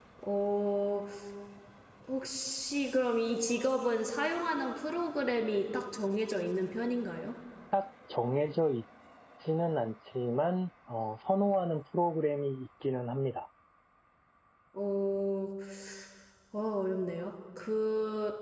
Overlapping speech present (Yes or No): No